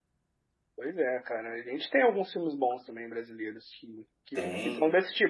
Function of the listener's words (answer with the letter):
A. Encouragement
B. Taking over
A